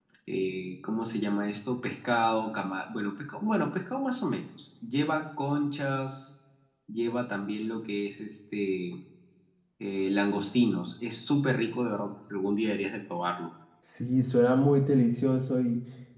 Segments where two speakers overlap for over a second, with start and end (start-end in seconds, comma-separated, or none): none